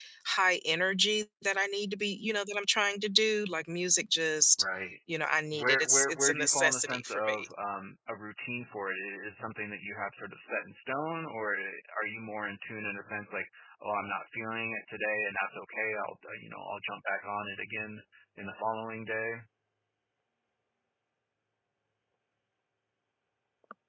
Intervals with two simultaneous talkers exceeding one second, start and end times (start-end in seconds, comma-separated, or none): 5.5-7.5